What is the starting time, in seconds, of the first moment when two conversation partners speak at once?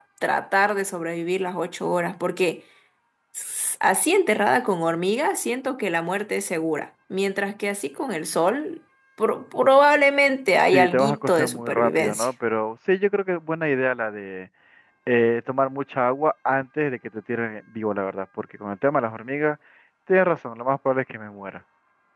11 s

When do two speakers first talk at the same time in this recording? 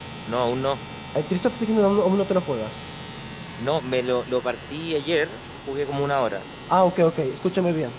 none

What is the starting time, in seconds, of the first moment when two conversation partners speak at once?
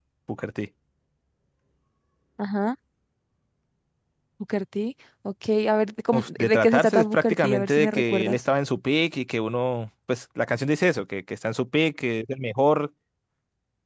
6 s

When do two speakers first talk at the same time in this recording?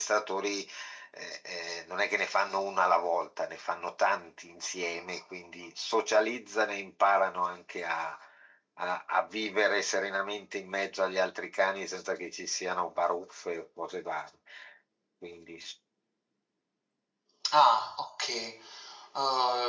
none

